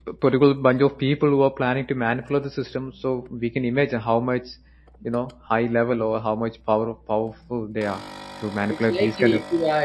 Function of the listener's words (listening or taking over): taking over